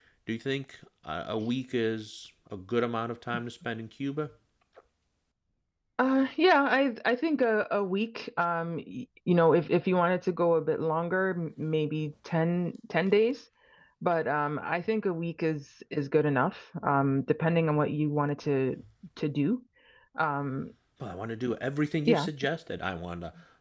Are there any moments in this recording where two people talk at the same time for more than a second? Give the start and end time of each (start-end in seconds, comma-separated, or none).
none